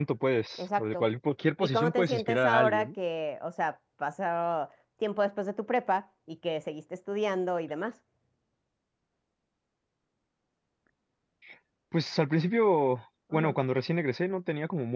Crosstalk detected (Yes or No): Yes